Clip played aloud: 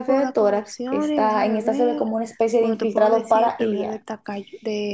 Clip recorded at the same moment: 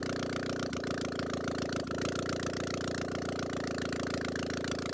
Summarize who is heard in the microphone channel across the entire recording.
neither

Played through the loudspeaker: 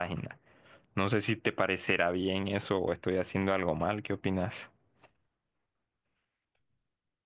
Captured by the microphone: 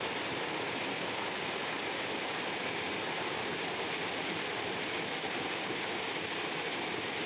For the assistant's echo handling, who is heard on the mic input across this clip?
neither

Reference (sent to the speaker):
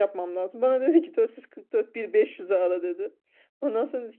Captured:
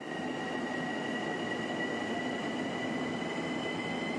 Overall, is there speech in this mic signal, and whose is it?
neither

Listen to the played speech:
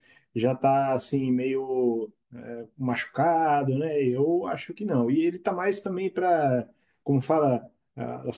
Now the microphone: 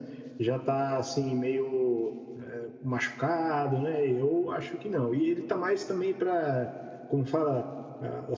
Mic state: echo only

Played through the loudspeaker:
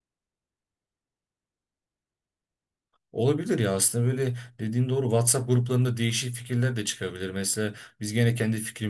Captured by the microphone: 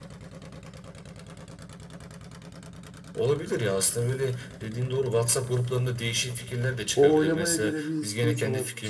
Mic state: both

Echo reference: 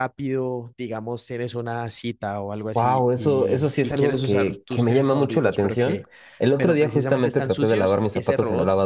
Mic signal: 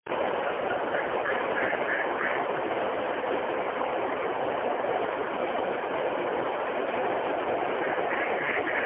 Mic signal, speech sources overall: neither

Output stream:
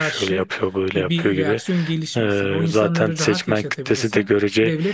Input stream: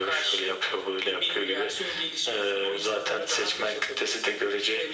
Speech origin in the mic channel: echo only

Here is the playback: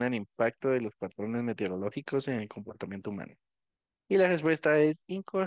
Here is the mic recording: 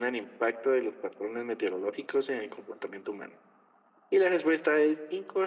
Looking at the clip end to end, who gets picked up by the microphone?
echo only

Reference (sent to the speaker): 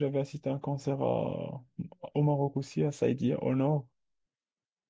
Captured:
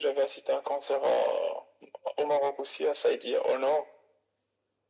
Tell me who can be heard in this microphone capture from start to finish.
echo only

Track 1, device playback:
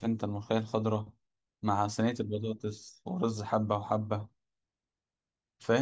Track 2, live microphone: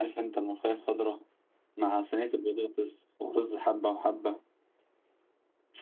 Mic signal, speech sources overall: echo only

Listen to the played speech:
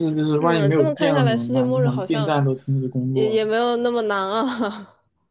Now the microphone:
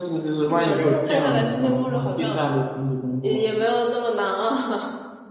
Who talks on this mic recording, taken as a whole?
echo only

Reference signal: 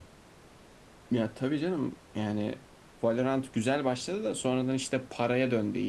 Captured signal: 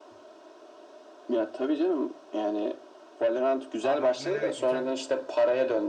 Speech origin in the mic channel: both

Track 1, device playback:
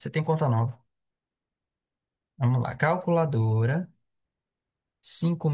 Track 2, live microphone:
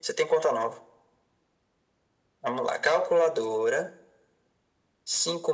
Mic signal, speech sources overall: echo only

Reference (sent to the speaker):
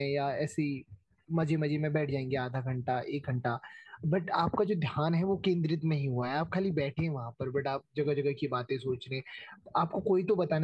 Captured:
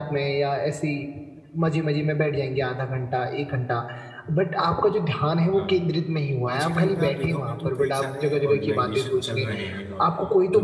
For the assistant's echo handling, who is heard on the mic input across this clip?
both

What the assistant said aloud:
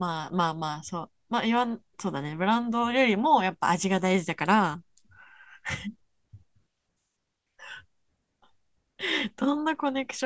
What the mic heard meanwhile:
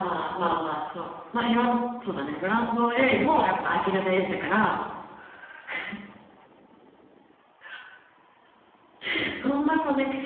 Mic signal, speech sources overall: echo only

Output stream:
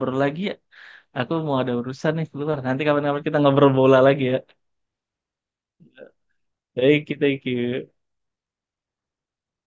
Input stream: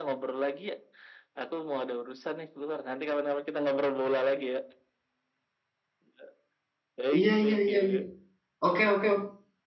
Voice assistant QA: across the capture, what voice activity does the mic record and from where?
both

